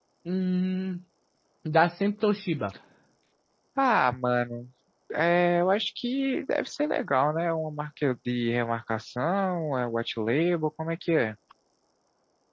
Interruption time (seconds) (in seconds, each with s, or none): none